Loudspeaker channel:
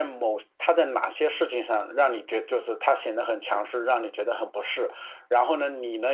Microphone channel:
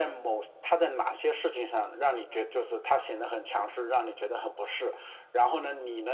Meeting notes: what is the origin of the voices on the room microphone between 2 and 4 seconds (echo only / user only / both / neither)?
echo only